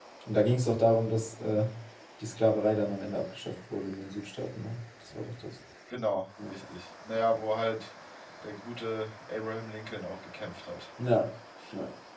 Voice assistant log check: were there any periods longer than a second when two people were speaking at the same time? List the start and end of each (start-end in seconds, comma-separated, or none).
none